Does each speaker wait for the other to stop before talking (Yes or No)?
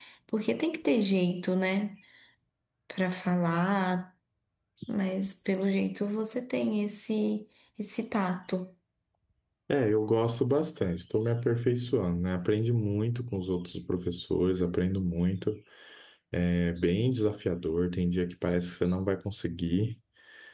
Yes